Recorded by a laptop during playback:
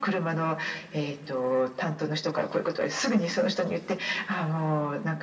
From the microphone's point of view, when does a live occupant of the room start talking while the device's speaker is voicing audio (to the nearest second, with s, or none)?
none